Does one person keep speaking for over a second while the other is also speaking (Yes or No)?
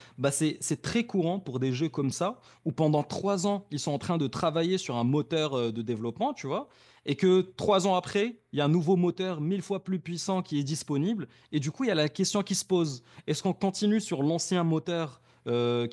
No